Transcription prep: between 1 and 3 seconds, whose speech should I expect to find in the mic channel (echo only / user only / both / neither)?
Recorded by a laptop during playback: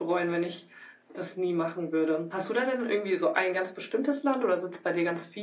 echo only